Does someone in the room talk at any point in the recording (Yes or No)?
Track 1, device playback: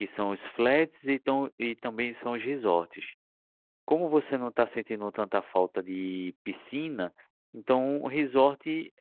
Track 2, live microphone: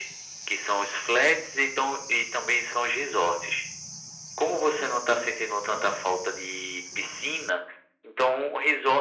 No